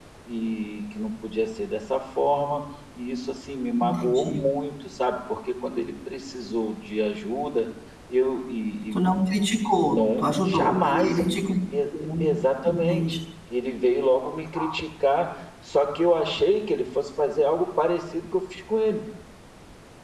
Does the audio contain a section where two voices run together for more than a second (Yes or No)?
Yes